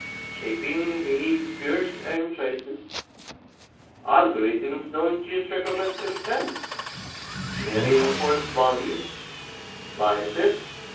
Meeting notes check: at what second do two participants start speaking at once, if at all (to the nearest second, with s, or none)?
none